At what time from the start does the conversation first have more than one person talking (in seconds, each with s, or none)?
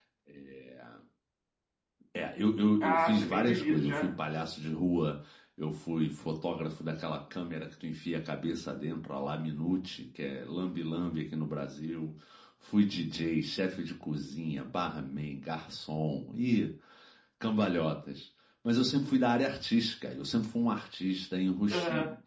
2.8 s